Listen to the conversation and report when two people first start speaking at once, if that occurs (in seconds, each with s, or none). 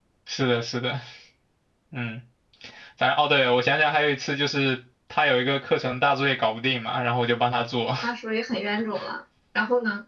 none